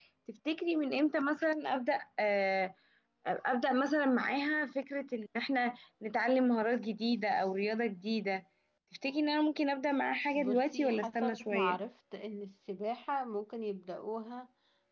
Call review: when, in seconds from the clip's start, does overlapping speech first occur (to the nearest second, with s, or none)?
10 s